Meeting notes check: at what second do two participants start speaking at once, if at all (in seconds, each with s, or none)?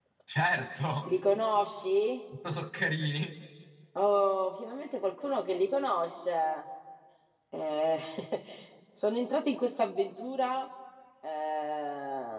none